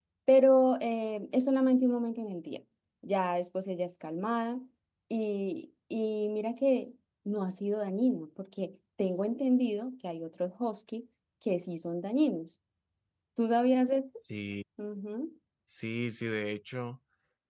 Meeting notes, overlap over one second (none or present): none